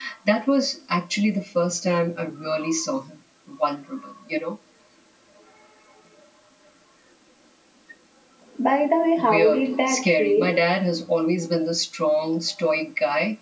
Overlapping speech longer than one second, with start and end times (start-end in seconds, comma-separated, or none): 9.2-10.6